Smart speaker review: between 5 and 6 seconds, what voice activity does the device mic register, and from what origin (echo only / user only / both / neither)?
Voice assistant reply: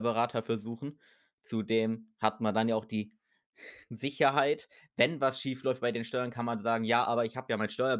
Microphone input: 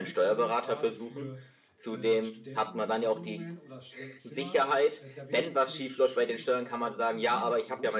both